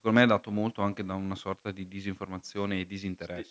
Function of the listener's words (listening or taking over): taking over